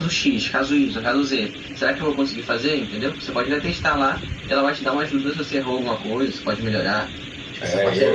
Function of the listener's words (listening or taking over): taking over